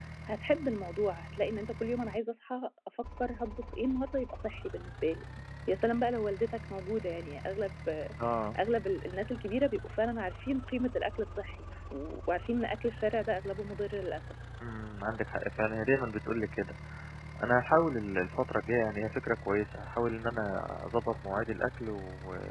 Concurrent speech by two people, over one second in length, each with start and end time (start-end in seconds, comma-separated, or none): none